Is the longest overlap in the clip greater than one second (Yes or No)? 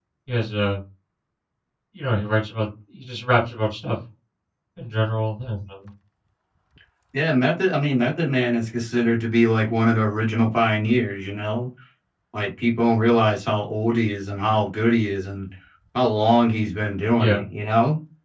No